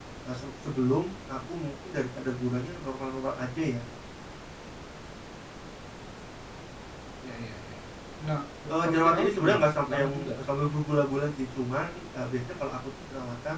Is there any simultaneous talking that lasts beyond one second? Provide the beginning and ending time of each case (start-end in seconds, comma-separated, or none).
8.7-10.3